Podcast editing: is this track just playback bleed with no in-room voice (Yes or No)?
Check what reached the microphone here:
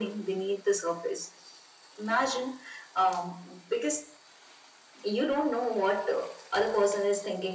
Yes